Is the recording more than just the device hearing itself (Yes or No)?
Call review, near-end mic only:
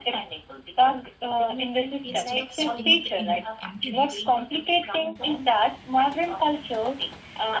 Yes